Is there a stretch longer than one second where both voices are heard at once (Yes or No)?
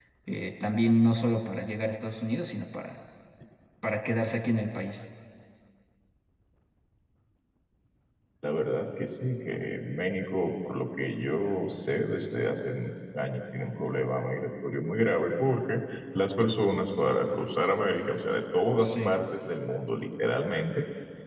No